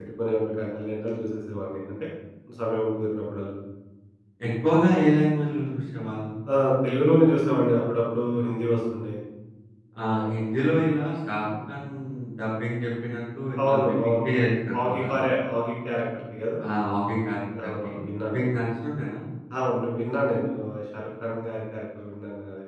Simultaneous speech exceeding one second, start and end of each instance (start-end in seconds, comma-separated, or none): 13.7-15.0